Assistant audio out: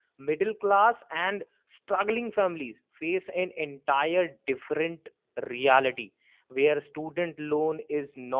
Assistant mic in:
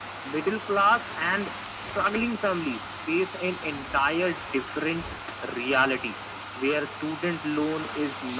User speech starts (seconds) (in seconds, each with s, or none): none